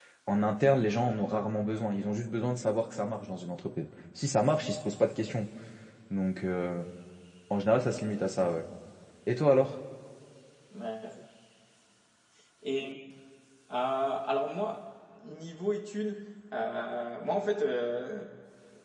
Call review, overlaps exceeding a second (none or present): none